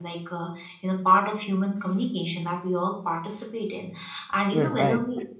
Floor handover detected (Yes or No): No